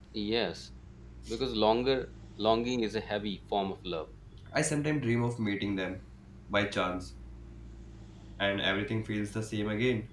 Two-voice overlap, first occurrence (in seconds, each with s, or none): none